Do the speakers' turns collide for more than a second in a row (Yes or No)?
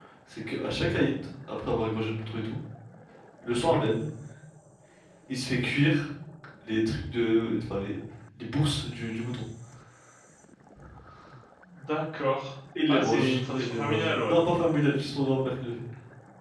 Yes